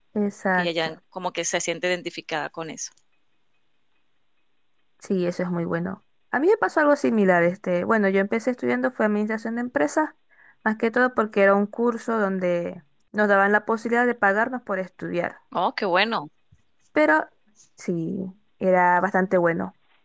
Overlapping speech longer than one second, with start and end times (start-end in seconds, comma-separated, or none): none